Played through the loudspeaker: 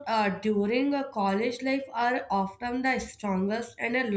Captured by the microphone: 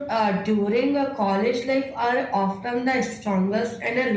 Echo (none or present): present